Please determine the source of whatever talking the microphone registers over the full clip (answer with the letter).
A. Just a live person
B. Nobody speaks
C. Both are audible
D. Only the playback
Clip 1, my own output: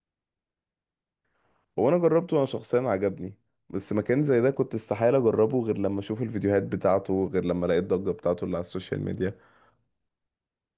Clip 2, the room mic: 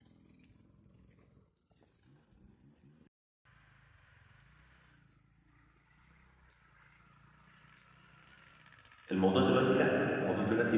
A